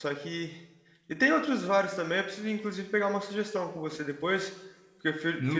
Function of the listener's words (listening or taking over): listening